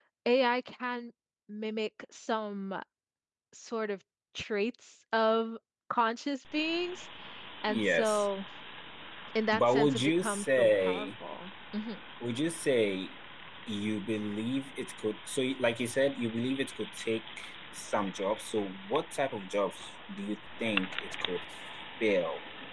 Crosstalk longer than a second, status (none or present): present